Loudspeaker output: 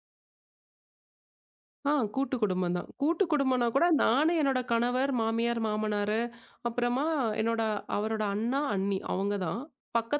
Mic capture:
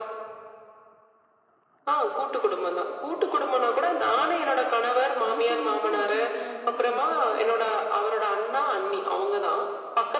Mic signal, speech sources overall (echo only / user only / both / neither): both